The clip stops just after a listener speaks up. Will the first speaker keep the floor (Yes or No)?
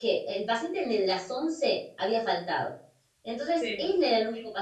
Yes